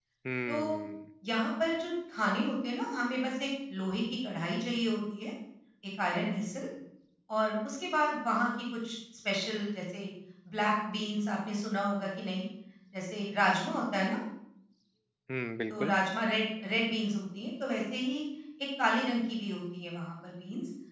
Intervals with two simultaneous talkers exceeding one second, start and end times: none

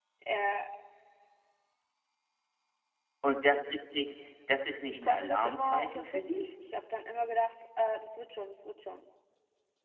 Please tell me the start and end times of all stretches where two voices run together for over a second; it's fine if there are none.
4.9-6.5

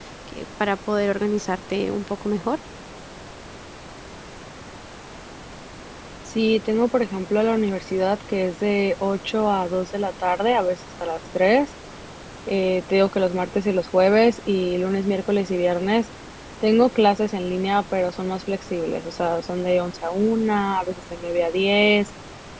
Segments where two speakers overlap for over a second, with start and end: none

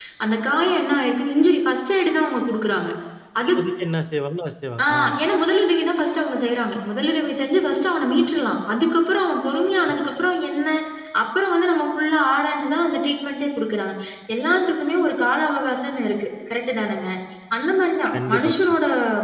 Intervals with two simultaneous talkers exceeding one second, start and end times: none

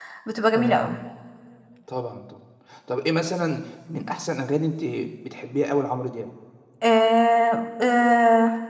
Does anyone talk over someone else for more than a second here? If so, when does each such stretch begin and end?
none

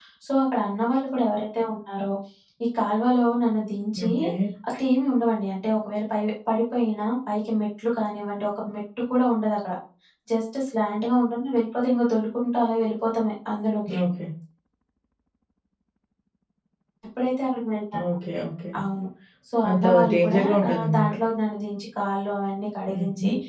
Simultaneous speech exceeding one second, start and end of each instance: 19.7-21.1

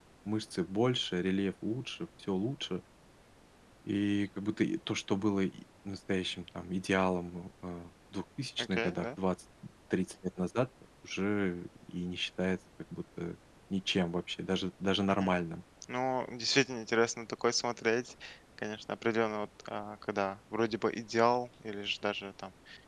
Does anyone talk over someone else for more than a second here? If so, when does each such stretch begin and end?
none

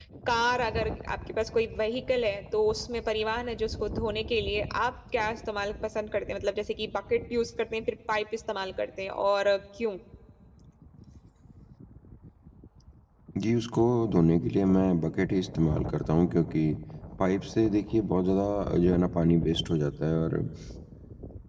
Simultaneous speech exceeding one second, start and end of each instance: none

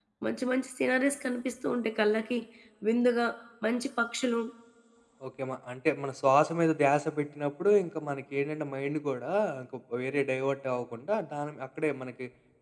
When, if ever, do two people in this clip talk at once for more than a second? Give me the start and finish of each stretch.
none

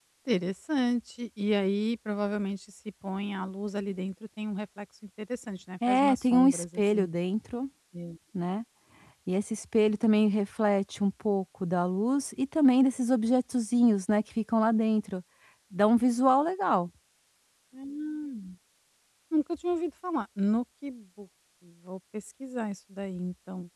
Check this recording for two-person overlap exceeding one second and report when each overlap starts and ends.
5.9-7.1

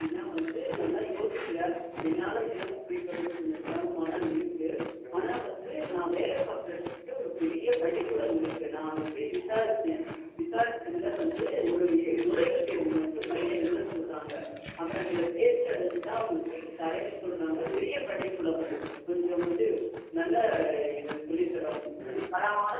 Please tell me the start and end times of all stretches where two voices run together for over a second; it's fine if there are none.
none

